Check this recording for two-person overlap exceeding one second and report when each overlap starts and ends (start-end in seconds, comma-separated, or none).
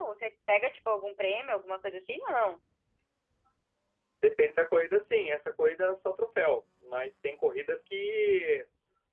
none